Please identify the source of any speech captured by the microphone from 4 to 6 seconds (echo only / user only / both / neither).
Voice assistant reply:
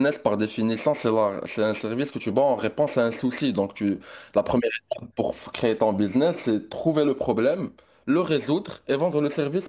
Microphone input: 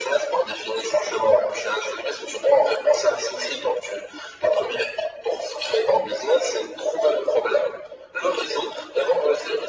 echo only